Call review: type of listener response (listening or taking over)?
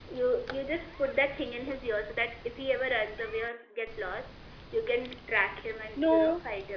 listening